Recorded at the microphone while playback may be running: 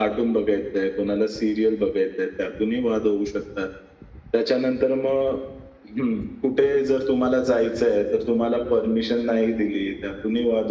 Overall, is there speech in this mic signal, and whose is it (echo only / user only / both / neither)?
echo only